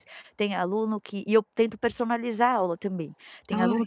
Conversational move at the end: listening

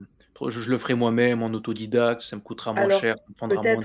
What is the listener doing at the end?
taking over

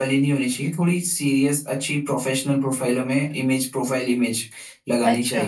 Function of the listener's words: listening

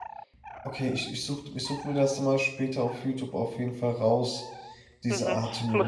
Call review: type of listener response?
taking over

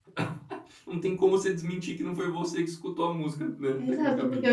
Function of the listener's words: taking over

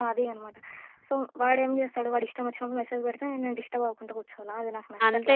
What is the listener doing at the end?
taking over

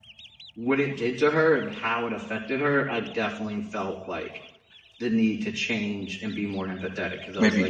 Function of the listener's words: taking over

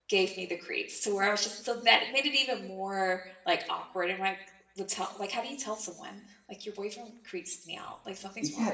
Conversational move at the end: taking over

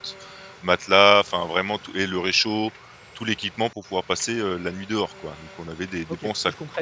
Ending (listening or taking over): taking over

